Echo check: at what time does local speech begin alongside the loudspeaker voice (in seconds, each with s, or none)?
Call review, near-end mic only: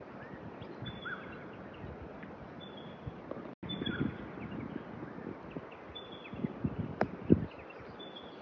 none